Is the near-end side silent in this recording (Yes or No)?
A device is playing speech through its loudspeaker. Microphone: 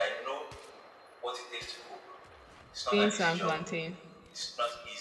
No